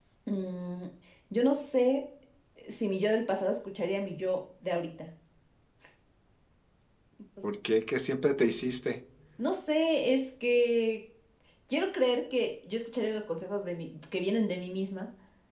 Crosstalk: none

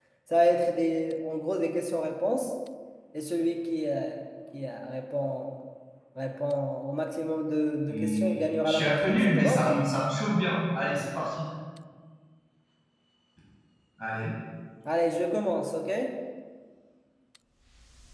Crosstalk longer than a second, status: present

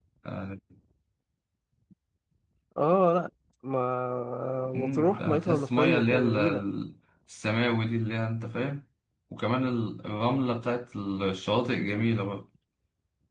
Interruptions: present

